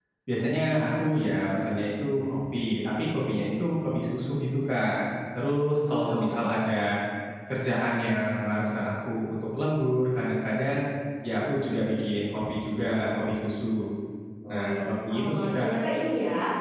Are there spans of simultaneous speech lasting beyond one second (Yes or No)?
Yes